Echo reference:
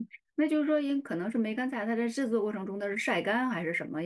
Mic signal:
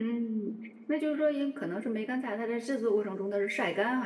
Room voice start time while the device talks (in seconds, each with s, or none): none